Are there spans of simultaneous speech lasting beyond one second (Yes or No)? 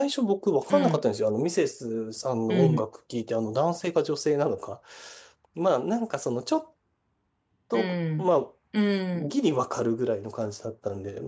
No